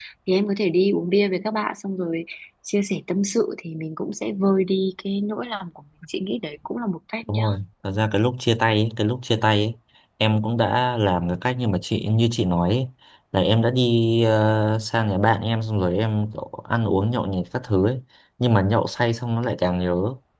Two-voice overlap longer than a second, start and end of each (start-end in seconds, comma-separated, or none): none